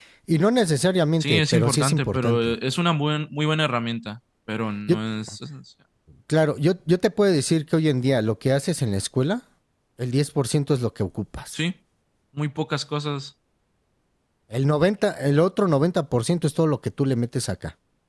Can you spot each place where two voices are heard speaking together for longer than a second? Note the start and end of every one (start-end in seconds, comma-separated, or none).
1.2-2.5